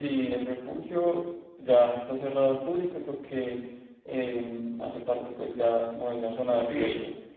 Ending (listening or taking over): listening